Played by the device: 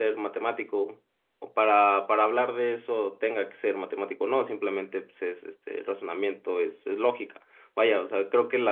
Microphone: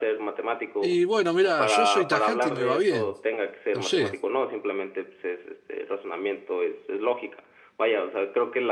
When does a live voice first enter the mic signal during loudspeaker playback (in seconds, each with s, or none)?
0.8 s